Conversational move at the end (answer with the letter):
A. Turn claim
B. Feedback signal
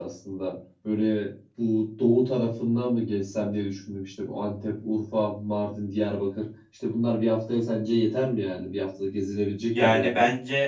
A